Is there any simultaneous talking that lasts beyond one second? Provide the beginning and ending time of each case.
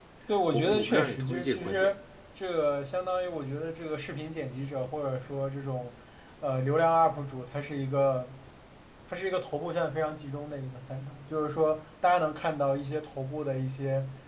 0.5-1.9

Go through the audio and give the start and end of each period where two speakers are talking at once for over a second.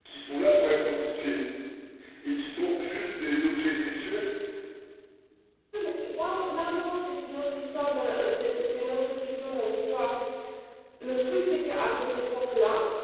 none

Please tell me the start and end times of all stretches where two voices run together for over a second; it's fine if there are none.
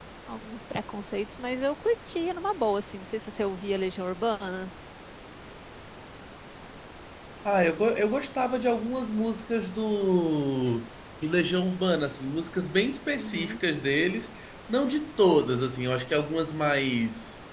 none

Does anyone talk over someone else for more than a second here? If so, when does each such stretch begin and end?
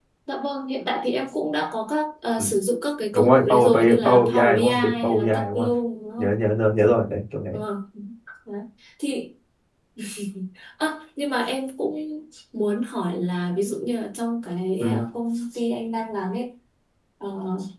3.1-5.7

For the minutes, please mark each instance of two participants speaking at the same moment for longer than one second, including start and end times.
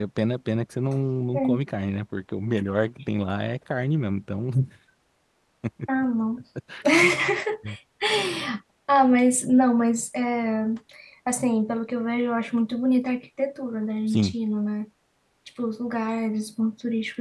none

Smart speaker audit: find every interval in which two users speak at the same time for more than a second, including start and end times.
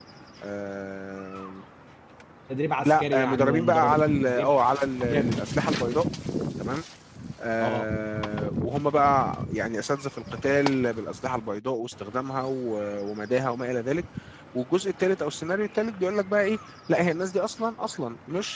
2.8-4.5

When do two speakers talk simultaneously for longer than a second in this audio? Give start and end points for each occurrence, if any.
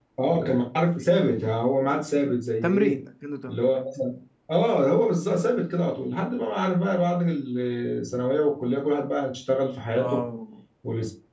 none

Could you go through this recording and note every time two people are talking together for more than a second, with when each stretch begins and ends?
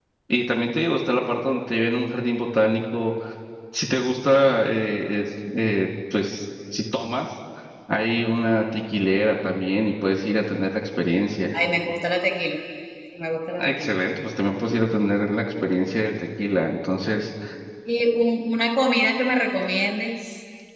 none

